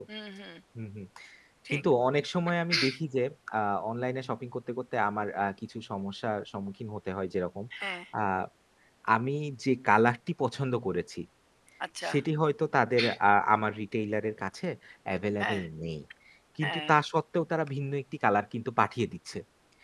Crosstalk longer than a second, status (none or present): none